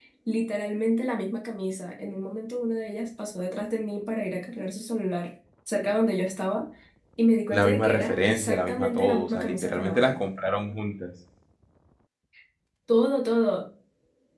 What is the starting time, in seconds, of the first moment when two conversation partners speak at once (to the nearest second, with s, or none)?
8 s